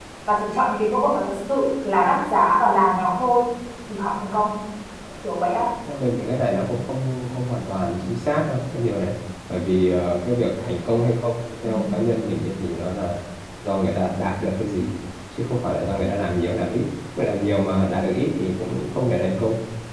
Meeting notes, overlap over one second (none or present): none